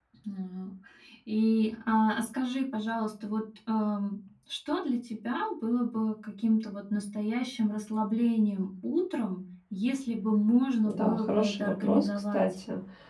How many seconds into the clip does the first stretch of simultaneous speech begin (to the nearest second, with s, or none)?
11 s